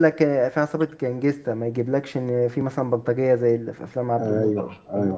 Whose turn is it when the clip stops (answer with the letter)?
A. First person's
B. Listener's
B